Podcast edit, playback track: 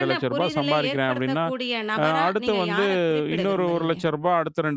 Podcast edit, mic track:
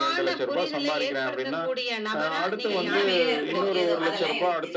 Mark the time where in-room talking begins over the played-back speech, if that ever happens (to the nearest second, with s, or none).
2 s